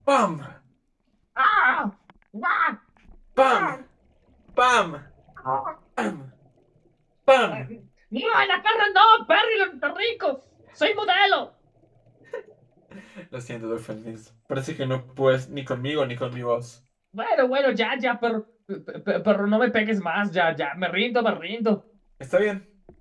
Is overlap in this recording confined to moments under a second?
Yes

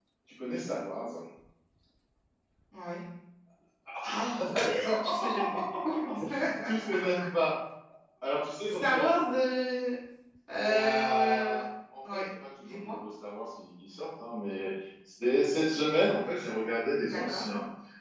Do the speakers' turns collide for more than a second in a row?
Yes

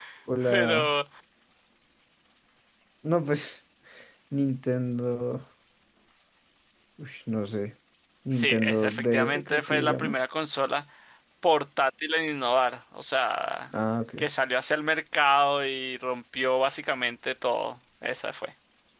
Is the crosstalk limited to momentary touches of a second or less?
No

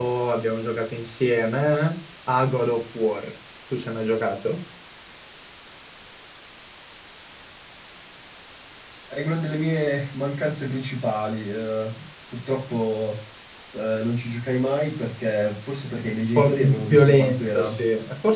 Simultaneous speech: Yes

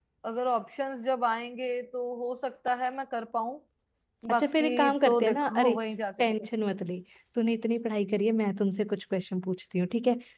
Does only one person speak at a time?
No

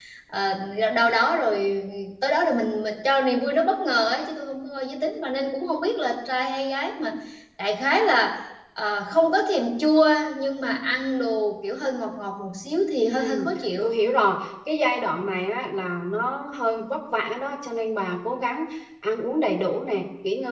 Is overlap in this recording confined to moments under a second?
Yes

